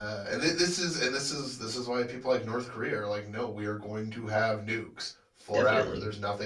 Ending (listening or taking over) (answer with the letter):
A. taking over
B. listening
B